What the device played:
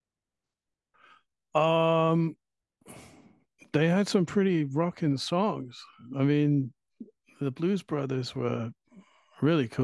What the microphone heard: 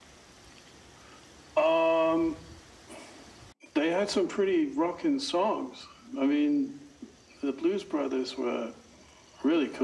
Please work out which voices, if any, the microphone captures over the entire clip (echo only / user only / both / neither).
echo only